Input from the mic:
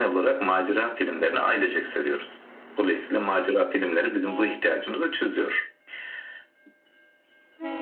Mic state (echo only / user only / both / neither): echo only